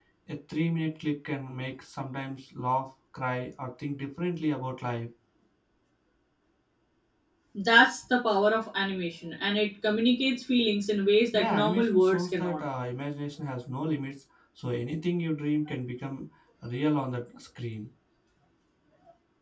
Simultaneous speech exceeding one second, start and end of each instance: 11.3-12.6

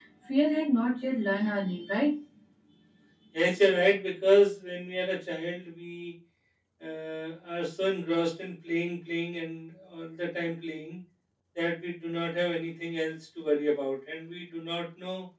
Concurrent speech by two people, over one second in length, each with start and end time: none

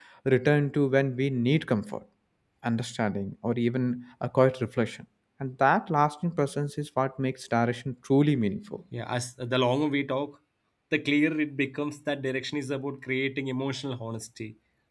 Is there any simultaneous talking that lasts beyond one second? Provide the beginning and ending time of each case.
none

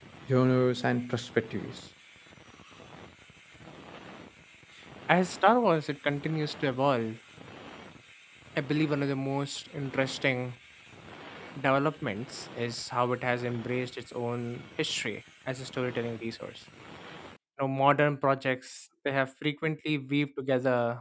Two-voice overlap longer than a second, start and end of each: none

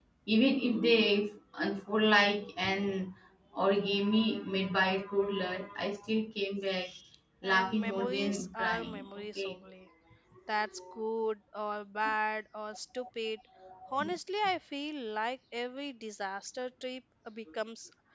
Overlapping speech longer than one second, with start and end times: 7.5-9.6

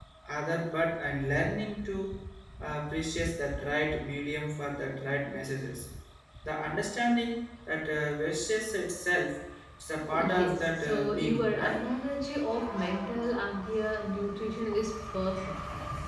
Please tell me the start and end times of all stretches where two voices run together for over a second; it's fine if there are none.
10.1-11.9

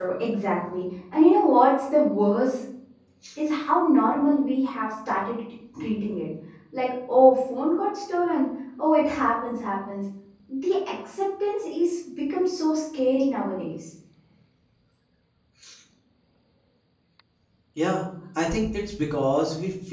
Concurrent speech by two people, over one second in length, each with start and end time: none

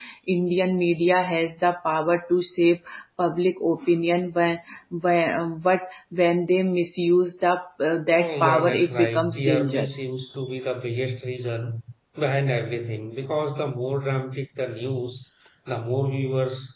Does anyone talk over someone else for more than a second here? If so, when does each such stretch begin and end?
8.1-10.1

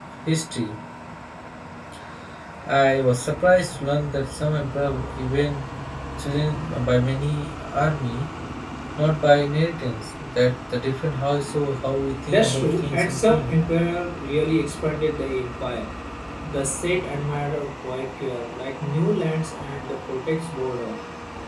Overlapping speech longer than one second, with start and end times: 12.3-13.5

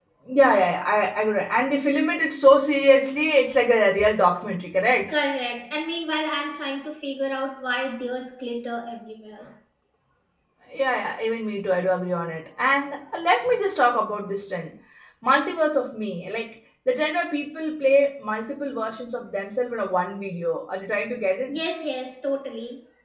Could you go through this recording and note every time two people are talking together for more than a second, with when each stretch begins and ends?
none

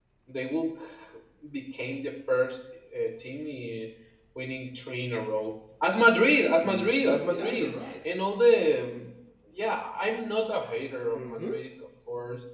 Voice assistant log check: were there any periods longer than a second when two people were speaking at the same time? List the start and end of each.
6.6-7.9

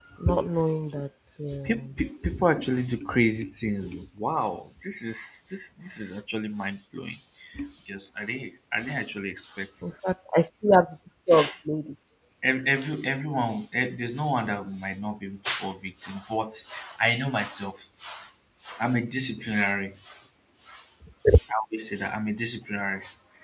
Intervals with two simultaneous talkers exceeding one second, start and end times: none

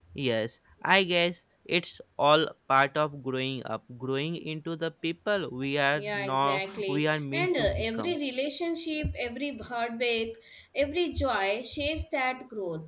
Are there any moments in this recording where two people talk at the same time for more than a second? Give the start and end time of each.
5.9-8.2

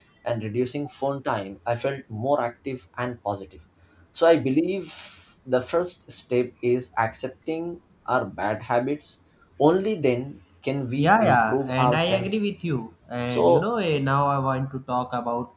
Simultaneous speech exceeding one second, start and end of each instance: 11.0-12.4

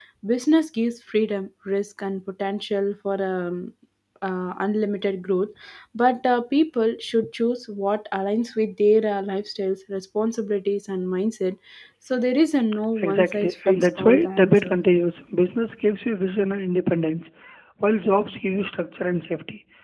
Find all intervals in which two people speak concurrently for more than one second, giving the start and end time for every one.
13.0-14.8

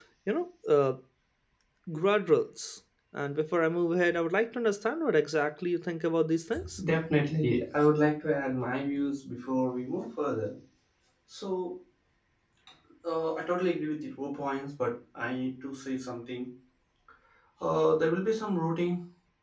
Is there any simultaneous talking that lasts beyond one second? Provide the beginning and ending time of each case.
none

